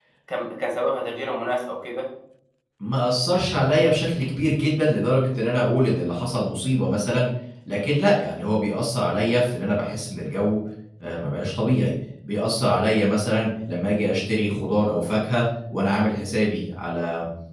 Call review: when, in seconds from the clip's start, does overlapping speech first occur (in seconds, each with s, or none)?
none